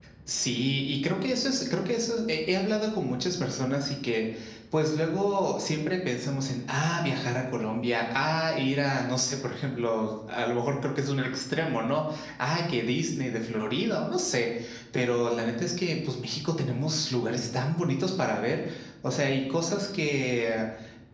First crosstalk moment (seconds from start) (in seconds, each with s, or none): none